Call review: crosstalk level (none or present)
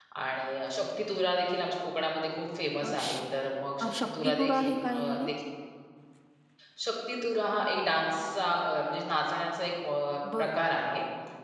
present